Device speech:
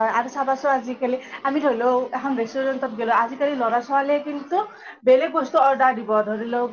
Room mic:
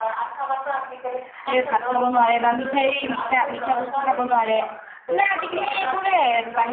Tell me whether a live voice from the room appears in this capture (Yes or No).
Yes